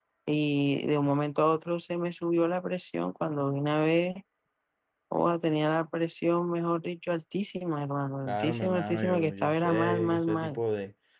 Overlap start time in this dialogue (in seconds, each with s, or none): 8.3 s